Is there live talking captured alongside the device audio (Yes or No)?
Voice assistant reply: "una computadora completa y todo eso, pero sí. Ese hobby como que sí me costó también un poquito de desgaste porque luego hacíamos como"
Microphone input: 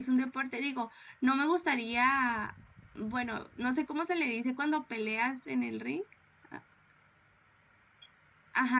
Yes